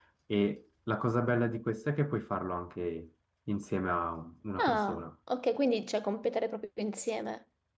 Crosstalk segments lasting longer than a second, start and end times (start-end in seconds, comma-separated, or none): none